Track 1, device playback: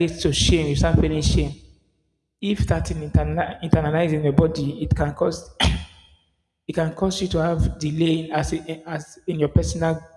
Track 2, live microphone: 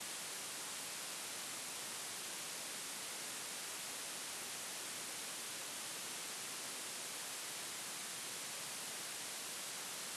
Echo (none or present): none